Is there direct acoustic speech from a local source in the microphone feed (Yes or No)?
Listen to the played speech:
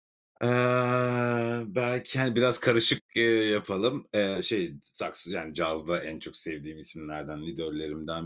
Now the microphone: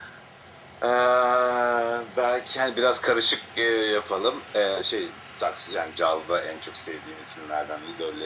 No